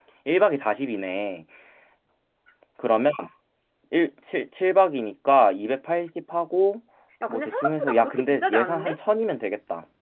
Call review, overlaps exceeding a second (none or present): present